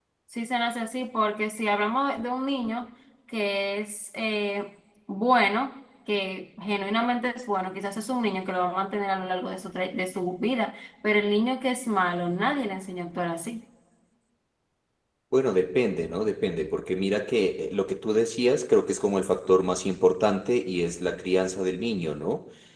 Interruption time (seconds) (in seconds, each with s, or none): none